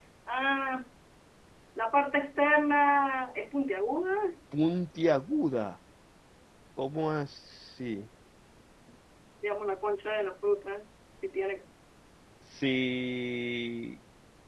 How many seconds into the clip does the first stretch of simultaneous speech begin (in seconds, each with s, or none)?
none